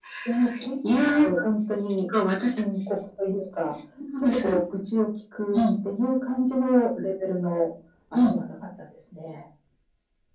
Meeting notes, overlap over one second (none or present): none